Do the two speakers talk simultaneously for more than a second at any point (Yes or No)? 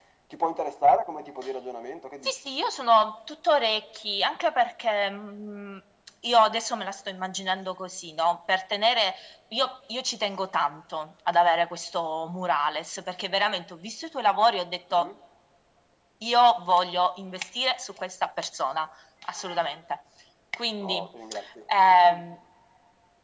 No